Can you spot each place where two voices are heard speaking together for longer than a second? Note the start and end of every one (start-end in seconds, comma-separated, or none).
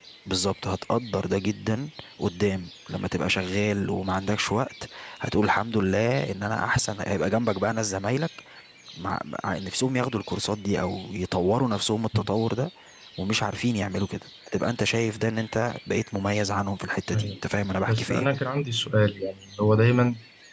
none